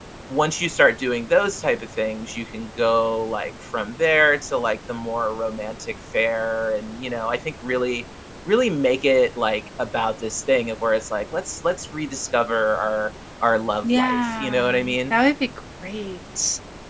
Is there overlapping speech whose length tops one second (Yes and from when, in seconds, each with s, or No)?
Yes, from 13.8 s